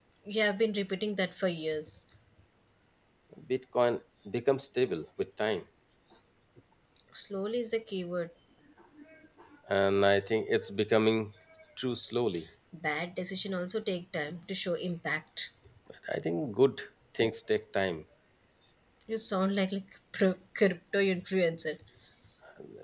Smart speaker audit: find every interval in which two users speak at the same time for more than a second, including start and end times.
none

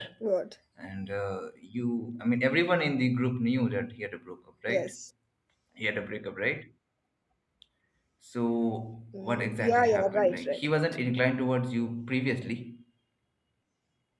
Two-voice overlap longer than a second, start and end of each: 9.1-10.8

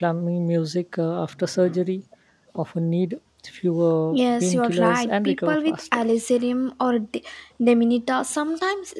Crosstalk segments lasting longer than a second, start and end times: 4.1-6.0

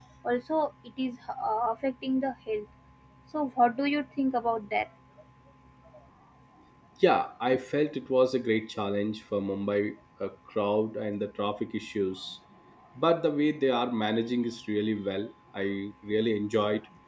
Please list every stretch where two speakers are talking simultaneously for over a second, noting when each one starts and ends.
none

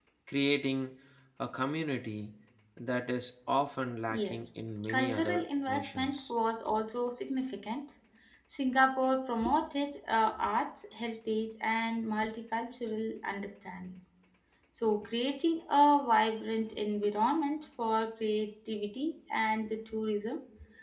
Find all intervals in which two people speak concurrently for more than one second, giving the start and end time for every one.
4.9-6.3

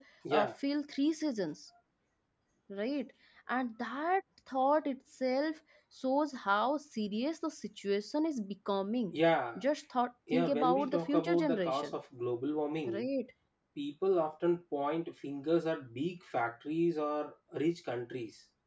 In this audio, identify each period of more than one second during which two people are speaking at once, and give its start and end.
10.3-11.9

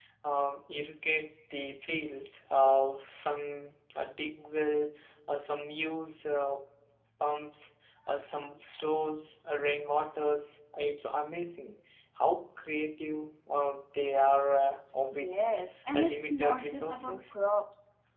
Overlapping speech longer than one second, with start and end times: 15.9-17.2

